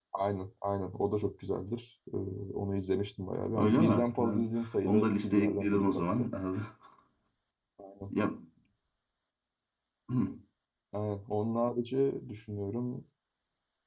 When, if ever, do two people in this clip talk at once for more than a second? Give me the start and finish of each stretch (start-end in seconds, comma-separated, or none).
3.6-6.3